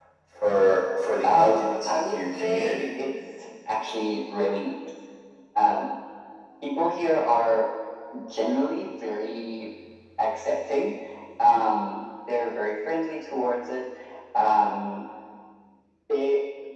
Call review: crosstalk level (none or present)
present